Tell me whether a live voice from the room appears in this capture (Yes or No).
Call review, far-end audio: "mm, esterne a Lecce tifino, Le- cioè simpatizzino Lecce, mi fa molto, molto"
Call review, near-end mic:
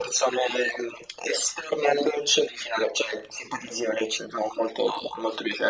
No